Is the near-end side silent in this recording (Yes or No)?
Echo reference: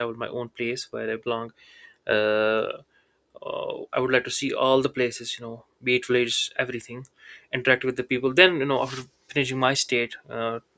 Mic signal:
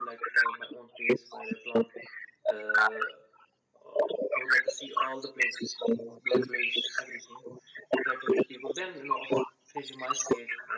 Yes